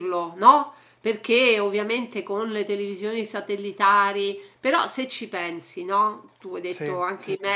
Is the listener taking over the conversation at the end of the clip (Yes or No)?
No